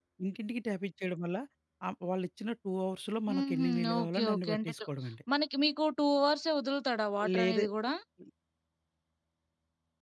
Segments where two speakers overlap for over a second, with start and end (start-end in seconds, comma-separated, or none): 3.3-4.7